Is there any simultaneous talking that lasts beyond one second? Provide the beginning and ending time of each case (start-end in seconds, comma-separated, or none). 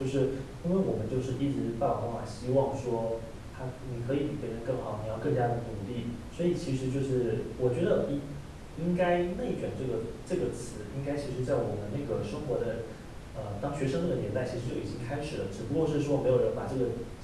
none